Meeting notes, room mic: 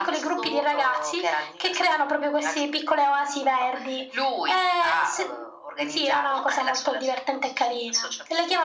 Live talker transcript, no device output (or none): none